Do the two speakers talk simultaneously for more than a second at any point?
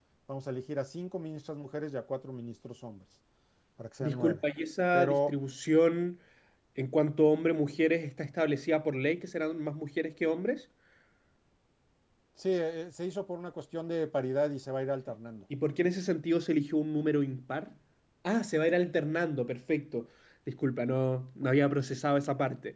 No

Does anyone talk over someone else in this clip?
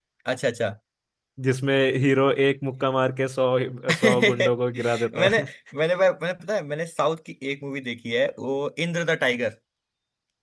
Yes, from 3.9 s

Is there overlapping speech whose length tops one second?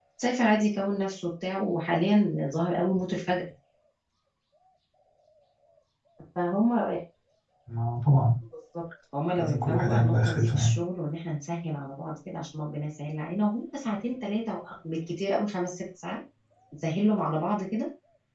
Yes, from 9.4 s

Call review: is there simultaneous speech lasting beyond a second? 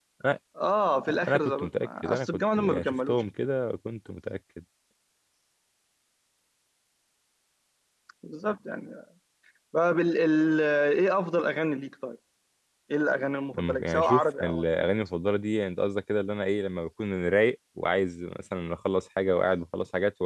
Yes, from 1.3 s

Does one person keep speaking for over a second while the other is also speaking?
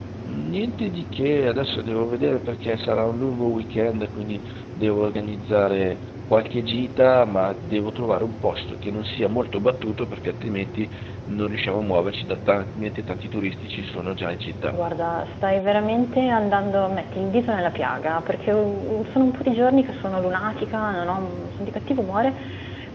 No

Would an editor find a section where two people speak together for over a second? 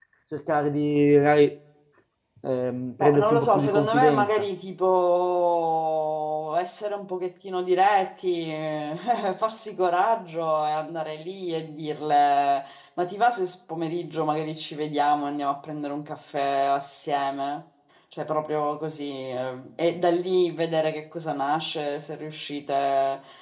Yes, from 3.0 s

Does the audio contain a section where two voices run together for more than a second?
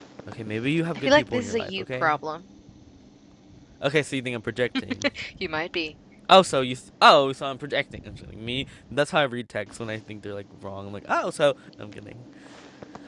Yes, from 1.0 s

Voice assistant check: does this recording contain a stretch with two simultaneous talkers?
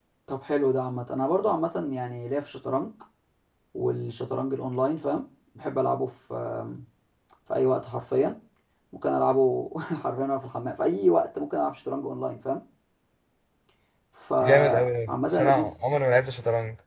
Yes, from 14.4 s

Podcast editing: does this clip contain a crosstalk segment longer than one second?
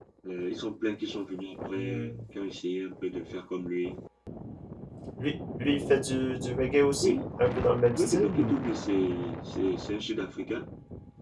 No

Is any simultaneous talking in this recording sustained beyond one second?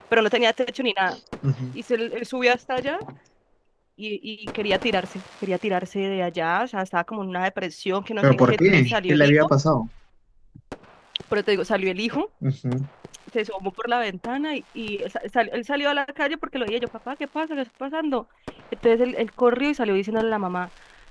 Yes, from 8.2 s

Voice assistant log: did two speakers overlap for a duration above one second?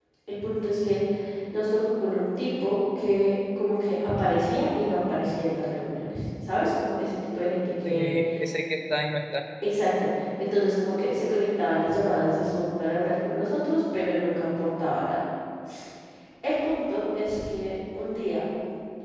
No

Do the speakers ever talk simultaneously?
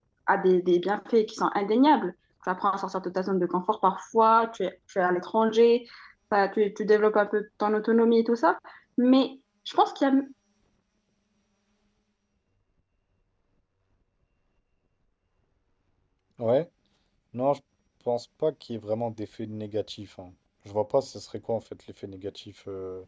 No

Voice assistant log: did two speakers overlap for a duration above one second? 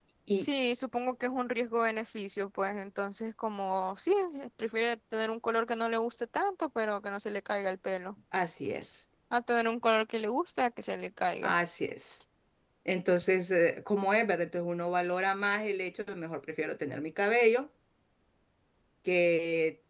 No

